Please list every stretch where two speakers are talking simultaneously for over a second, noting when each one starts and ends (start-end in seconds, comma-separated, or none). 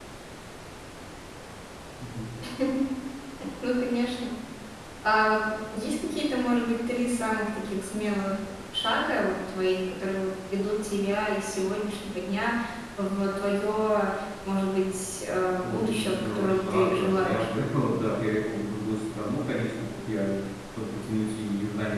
15.6-17.5